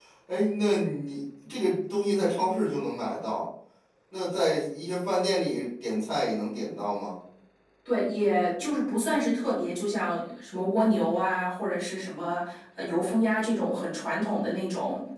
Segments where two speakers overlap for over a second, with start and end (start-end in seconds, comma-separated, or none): none